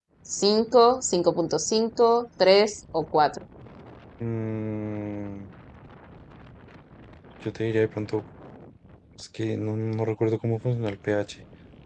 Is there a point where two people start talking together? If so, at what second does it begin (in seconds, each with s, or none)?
none